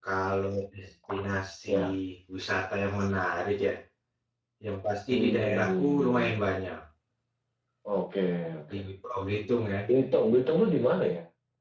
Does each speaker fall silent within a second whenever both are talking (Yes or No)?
No